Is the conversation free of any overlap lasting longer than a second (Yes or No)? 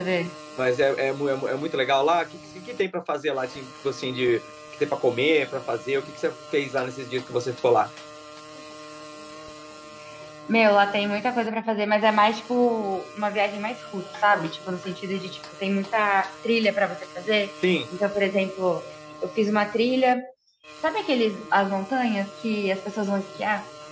Yes